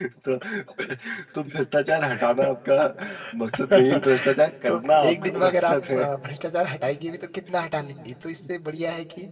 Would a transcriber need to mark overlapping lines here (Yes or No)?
Yes